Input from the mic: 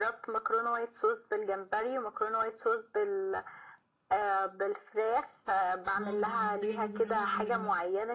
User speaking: Yes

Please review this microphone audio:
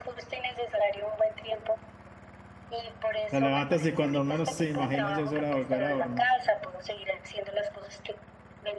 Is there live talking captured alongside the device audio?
Yes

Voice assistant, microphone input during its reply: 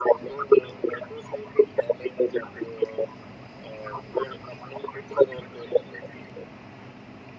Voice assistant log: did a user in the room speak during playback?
No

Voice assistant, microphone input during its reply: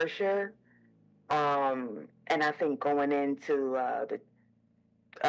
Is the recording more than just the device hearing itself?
No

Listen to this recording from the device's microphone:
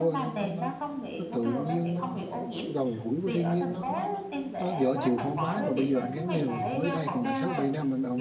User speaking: Yes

